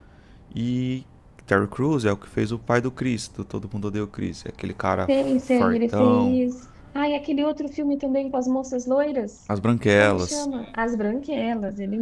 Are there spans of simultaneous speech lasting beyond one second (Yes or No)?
Yes